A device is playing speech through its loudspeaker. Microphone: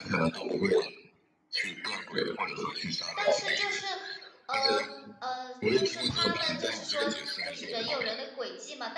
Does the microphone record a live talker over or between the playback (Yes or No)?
Yes